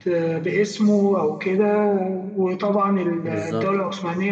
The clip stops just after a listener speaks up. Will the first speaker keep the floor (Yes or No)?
Yes